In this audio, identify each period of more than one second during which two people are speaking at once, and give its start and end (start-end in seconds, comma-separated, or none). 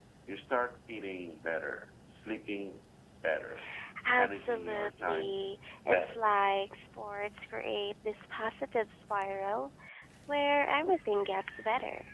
4.2-5.4